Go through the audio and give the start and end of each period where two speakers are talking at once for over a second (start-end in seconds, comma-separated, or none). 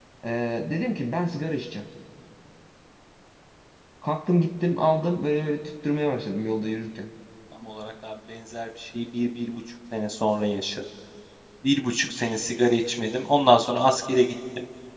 none